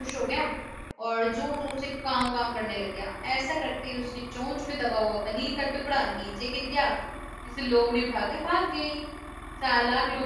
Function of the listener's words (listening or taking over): listening